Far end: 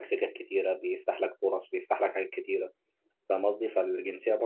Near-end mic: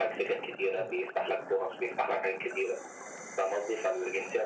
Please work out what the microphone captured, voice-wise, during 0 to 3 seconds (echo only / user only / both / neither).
echo only